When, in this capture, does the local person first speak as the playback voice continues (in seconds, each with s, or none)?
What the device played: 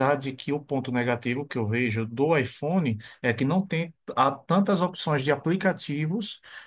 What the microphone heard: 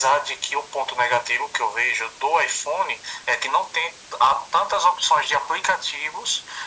none